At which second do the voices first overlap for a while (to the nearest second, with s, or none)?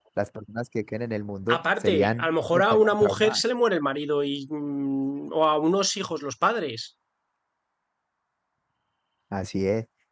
1 s